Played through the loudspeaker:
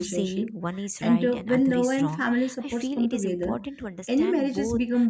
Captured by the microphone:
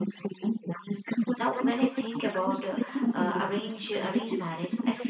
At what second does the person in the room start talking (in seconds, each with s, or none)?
1.4 s